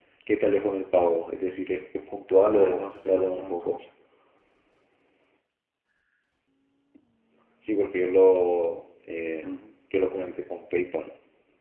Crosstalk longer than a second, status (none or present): present